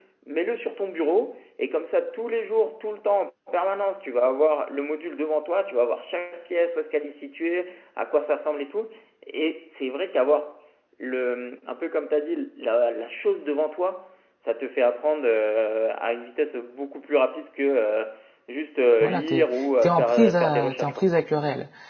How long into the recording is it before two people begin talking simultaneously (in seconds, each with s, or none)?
19.0 s